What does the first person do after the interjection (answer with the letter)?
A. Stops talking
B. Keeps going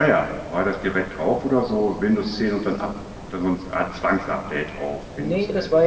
A